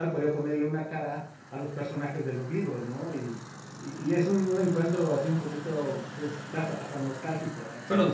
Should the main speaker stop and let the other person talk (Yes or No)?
Yes